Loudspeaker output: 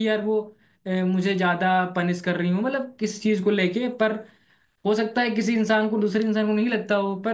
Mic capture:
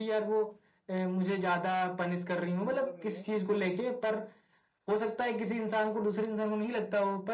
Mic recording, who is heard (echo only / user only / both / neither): both